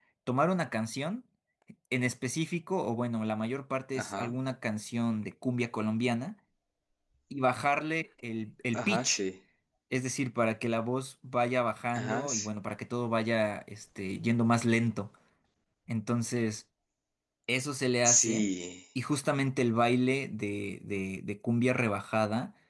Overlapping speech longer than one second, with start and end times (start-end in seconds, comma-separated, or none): none